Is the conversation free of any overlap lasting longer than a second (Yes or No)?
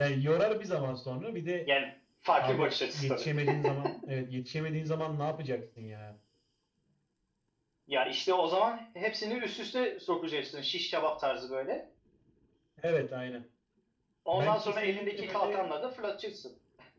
No